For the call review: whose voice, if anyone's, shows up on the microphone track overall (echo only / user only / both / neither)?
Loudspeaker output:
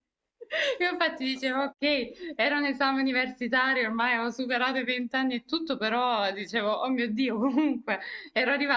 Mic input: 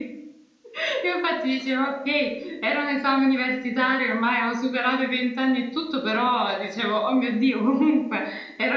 echo only